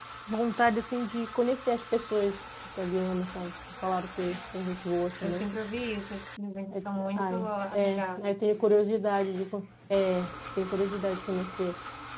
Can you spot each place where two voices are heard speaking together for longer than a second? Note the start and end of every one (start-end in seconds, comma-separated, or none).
6.7-8.3